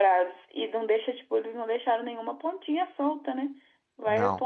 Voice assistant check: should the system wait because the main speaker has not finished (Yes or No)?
Yes